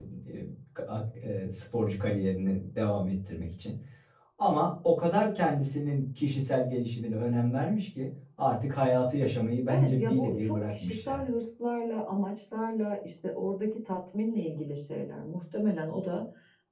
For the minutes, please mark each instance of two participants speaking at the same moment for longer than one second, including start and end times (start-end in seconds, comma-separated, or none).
9.7-11.2